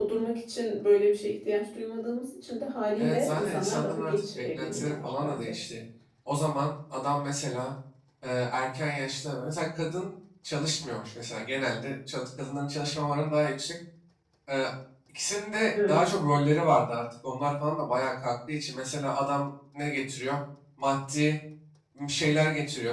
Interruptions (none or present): present